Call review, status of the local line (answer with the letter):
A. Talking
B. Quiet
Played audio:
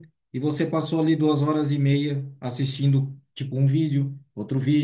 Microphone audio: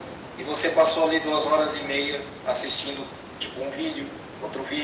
B